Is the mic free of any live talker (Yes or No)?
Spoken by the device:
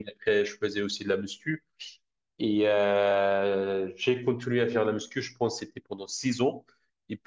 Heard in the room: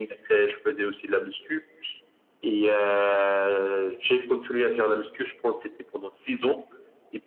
Yes